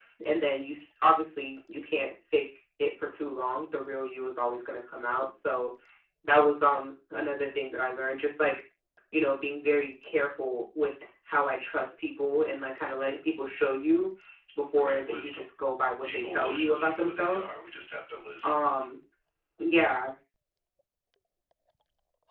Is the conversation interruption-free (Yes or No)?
No